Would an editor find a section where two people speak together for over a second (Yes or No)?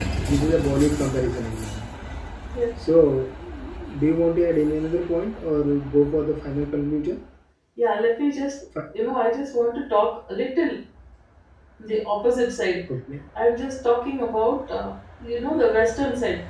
No